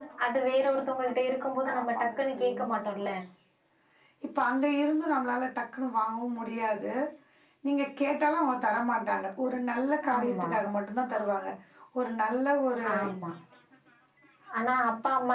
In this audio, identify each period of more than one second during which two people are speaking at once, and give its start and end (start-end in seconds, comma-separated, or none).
1.7-3.0